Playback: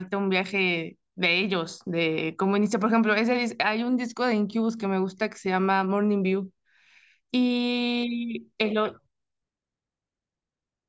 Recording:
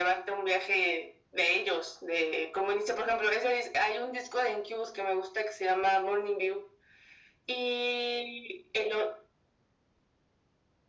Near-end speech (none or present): none